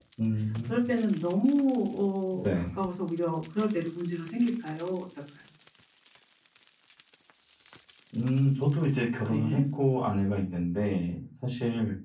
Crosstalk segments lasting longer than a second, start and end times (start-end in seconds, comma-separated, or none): none